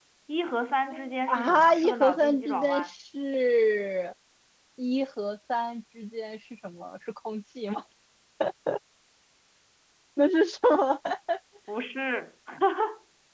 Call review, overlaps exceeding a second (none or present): present